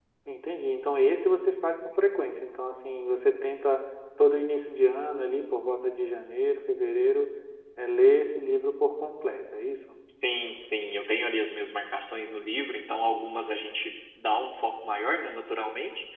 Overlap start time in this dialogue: none

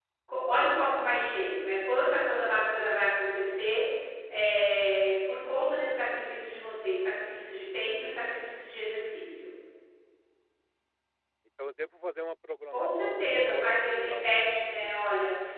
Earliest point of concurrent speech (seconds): 13 s

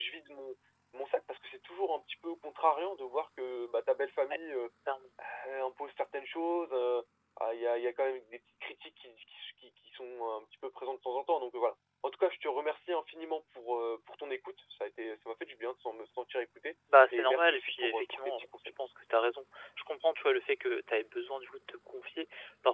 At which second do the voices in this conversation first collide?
17 s

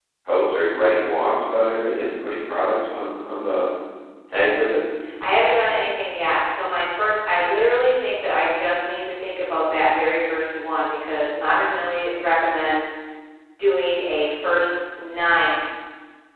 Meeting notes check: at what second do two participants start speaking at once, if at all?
none

